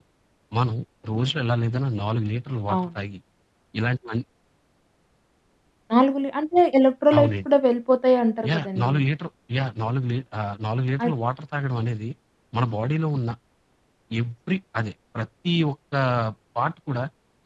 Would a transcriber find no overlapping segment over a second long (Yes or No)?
Yes